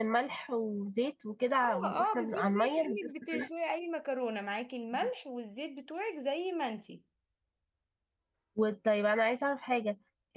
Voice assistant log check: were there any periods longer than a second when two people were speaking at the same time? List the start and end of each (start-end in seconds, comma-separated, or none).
1.6-3.5